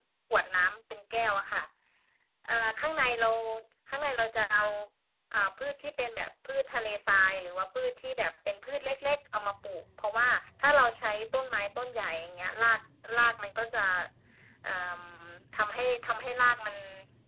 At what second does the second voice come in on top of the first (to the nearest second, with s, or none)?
none